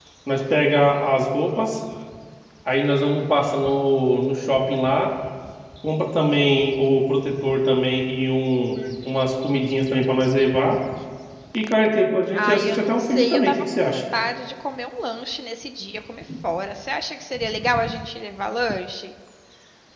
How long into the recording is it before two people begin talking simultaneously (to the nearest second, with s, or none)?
12 s